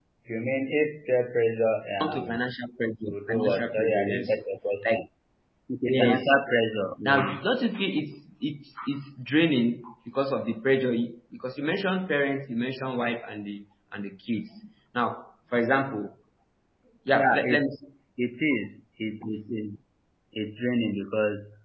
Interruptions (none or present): present